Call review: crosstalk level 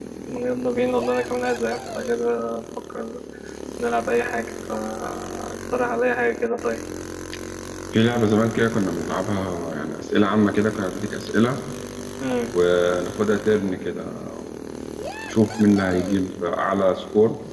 none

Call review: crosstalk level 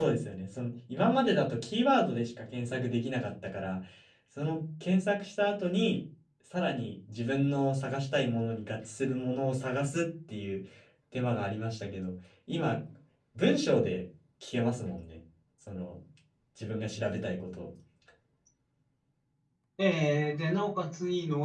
none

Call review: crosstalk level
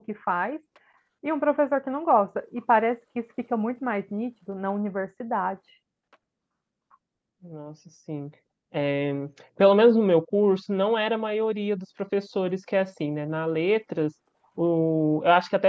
none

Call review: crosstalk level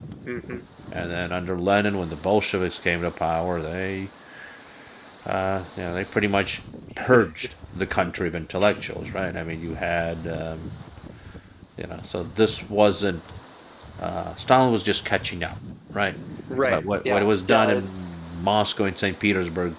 present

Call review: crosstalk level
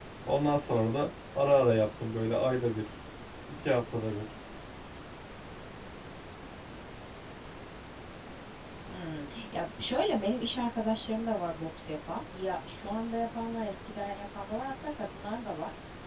none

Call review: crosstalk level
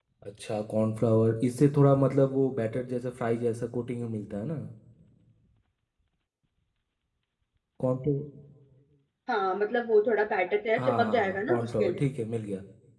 present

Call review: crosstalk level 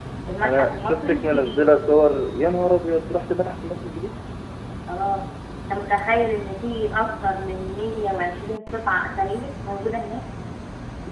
present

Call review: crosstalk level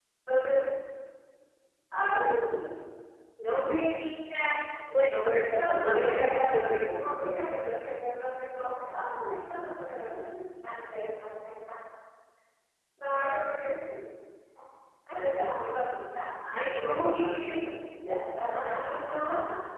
present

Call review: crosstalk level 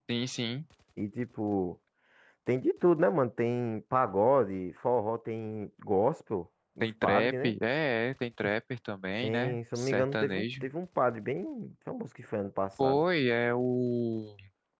present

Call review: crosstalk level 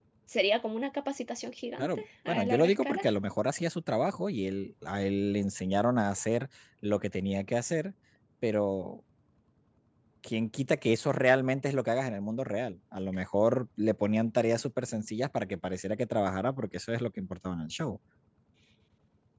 present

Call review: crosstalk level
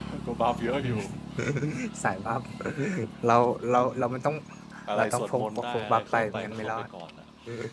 present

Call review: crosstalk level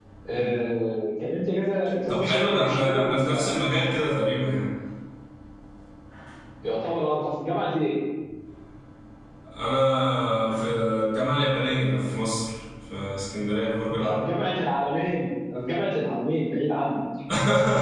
present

